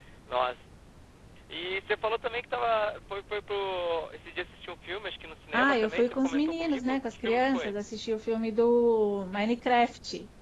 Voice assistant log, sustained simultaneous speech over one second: present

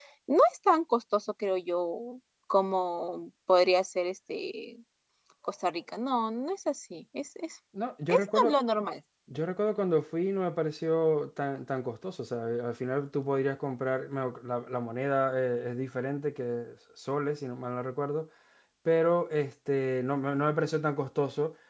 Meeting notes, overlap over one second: none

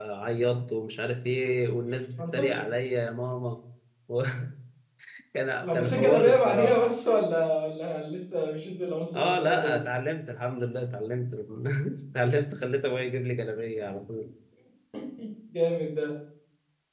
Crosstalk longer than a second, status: present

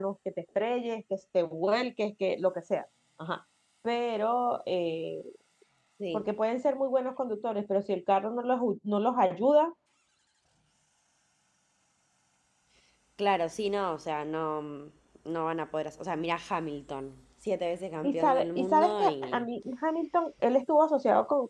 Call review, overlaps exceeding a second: present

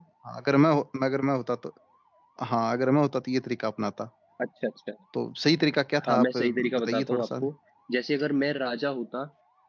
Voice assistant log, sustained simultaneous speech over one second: present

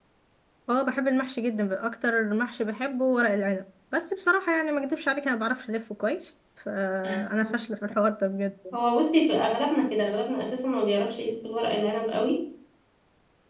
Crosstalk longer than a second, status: none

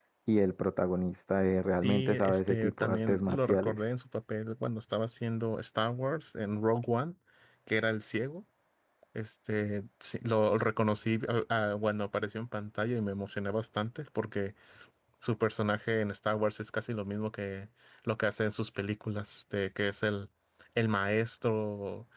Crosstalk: present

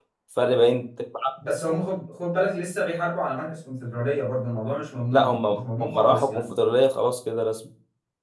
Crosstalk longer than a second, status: present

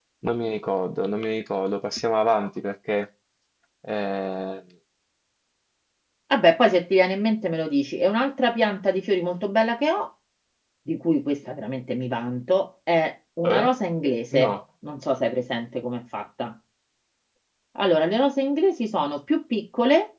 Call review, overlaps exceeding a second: none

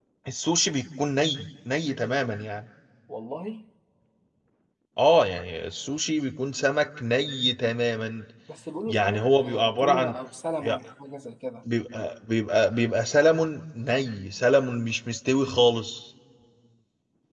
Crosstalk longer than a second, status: present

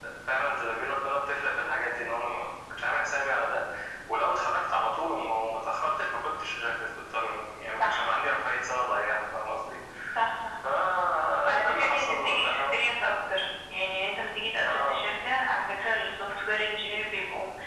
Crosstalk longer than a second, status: present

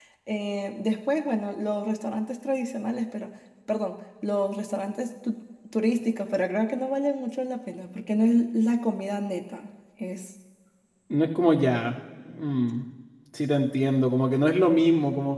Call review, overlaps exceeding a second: none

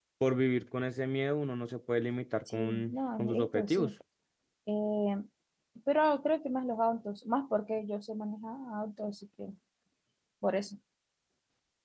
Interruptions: present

